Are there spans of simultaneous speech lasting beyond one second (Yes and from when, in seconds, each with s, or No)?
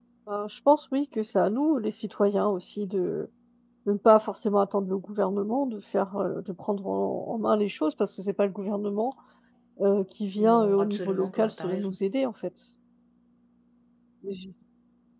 Yes, from 10.4 s